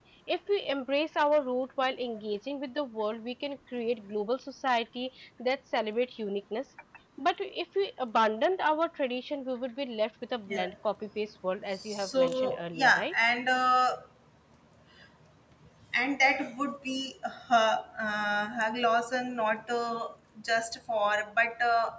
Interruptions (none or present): present